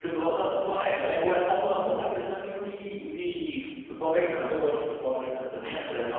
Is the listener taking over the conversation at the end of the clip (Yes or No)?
Yes